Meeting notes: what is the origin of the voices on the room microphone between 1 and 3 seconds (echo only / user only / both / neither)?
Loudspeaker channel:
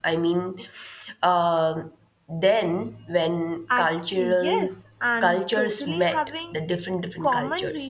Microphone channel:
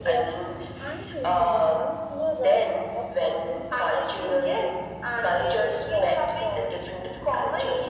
both